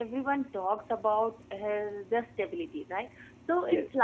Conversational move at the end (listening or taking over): listening